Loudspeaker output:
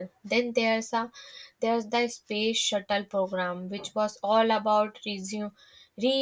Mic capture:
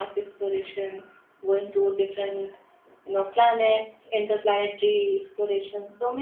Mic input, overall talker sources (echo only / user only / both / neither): user only